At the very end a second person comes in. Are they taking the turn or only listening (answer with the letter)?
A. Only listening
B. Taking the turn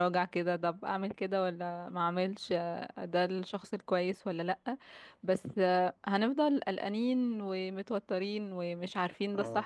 A